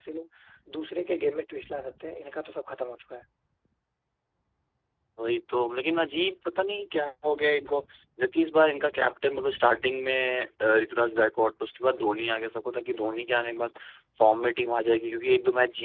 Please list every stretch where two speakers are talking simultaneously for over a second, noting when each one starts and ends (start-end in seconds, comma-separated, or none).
none